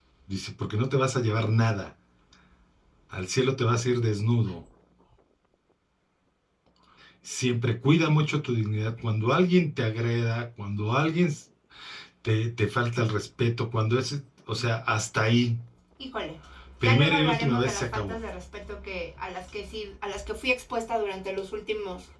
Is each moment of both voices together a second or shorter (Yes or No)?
No